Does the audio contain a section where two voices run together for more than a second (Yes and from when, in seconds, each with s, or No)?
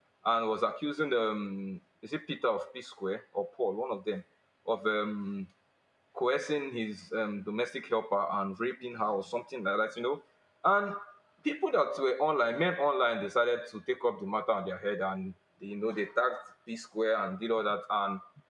No